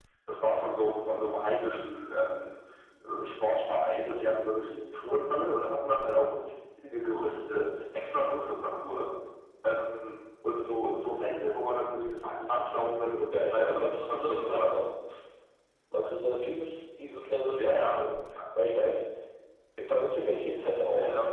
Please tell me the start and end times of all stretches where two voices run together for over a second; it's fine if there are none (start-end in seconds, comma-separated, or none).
13.3-14.8